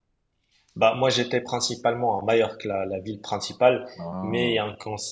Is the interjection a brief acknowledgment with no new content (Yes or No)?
Yes